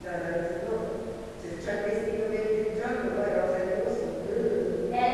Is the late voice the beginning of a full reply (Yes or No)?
Yes